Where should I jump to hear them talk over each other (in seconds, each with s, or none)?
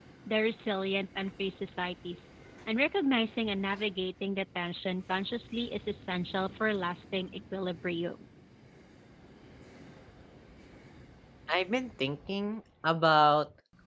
none